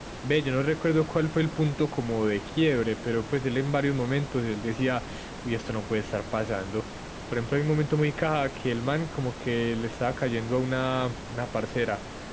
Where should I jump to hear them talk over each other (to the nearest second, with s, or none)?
none